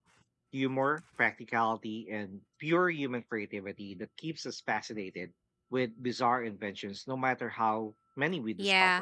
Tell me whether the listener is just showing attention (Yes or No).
No